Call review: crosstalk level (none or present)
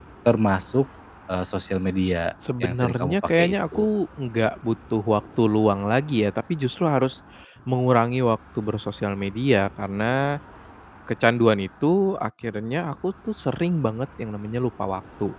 present